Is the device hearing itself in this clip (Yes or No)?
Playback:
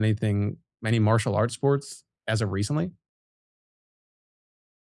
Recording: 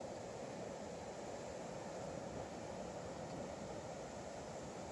No